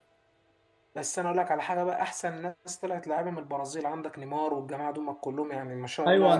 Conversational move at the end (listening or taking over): taking over